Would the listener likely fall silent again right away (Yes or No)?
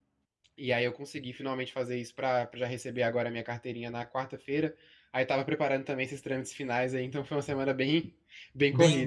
No